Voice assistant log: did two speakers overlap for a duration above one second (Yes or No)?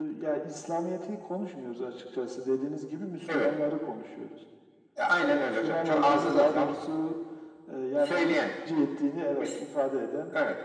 Yes